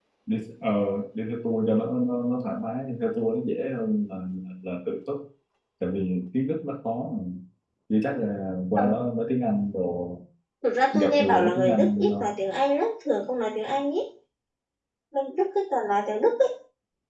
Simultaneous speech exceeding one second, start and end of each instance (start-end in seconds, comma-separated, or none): 10.9-12.3